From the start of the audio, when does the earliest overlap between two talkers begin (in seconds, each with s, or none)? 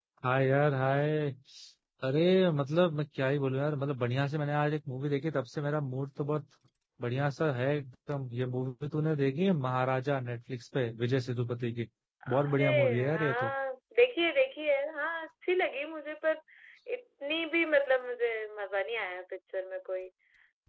12.3 s